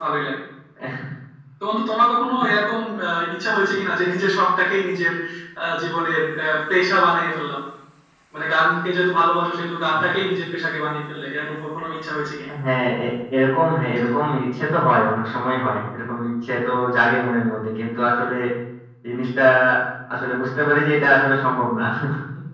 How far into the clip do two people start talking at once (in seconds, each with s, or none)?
none